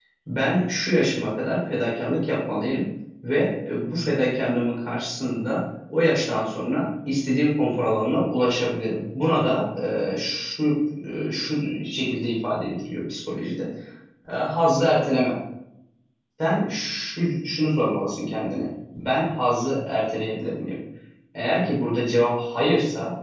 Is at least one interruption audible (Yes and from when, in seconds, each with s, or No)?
No